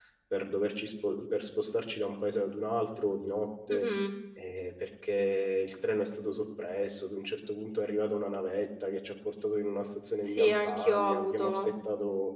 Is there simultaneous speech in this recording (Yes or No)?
Yes